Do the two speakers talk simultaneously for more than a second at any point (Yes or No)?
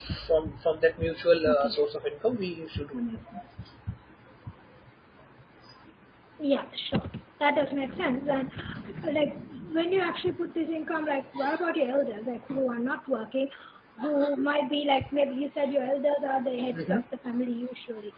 No